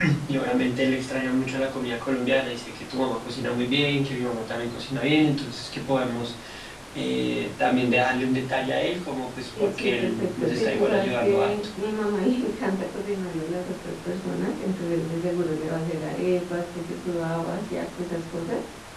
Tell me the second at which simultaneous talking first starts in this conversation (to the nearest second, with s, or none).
10 s